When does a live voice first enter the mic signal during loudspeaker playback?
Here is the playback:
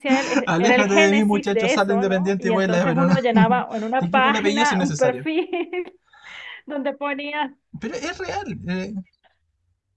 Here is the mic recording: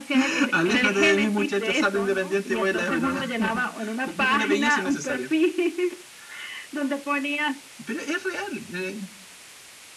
none

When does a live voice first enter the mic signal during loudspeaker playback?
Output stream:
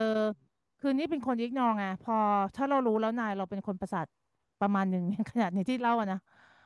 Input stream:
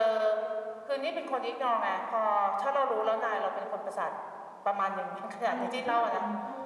5.5 s

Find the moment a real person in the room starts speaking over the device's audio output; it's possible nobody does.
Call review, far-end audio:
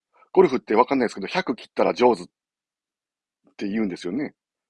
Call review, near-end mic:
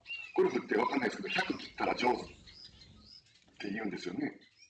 none

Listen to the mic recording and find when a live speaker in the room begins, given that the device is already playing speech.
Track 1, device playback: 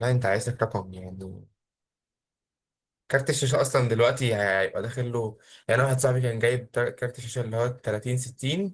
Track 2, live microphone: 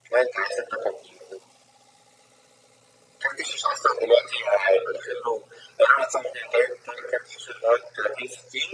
none

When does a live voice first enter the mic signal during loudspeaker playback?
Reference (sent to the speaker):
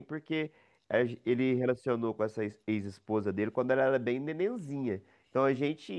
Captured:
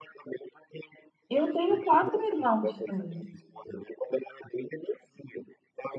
1.3 s

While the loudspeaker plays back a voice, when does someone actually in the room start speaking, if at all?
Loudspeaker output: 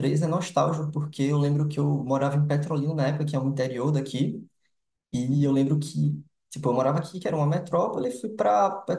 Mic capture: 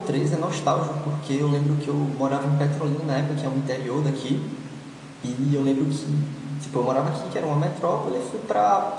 none

